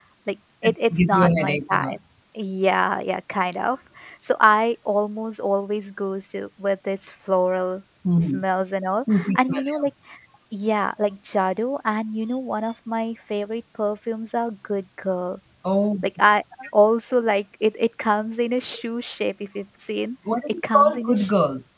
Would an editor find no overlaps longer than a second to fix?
No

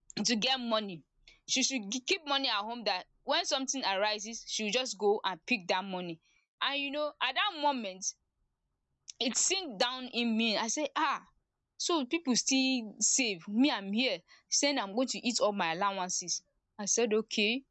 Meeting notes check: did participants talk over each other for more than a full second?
No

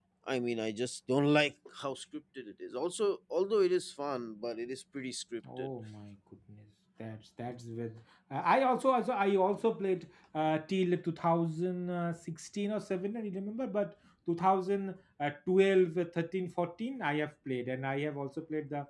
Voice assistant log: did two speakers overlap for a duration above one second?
No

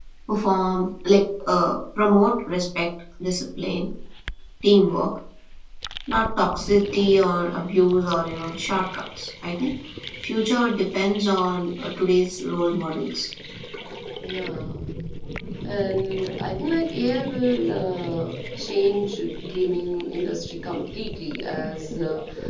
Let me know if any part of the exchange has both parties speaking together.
No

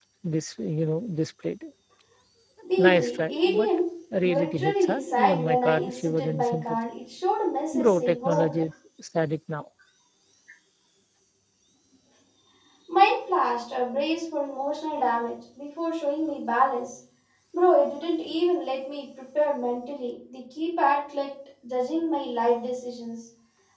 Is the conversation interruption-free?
No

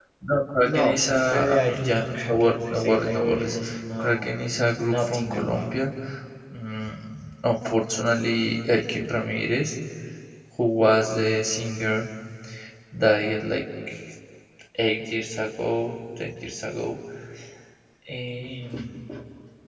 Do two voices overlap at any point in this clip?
Yes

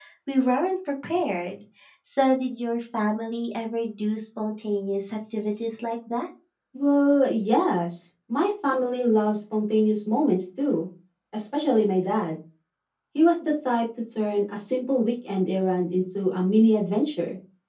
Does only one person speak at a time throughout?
Yes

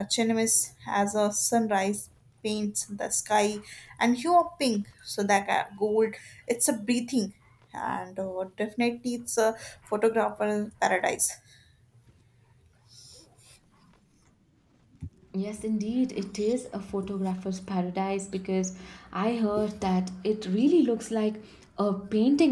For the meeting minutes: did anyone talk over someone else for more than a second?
No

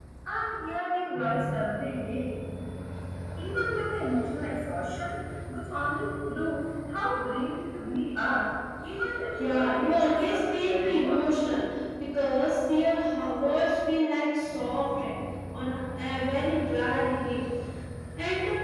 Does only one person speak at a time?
No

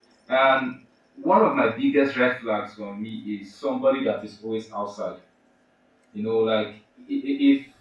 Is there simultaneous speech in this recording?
No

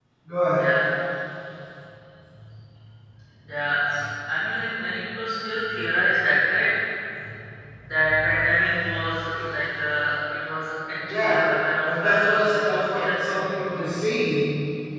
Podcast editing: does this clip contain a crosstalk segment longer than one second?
Yes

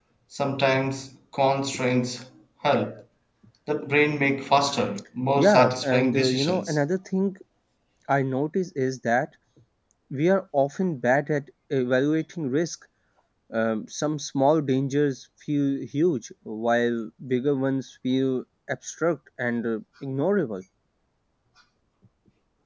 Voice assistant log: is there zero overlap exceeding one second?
No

